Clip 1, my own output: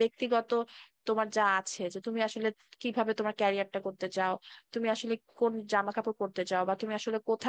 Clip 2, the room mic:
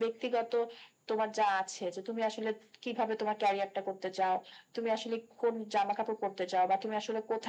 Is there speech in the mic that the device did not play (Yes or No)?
No